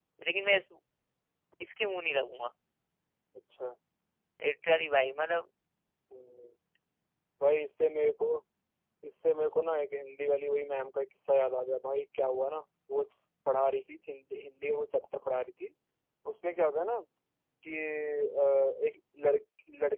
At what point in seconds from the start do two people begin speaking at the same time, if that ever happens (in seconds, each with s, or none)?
none